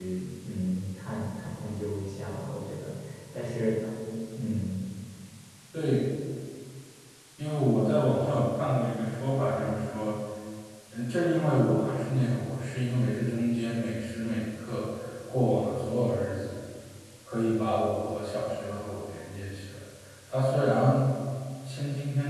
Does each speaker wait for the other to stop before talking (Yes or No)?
Yes